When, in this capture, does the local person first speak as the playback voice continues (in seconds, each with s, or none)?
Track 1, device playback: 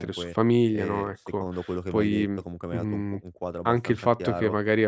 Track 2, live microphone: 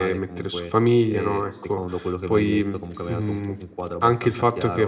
none